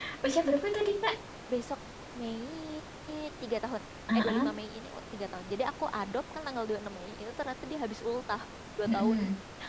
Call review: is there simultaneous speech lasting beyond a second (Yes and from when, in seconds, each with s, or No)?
No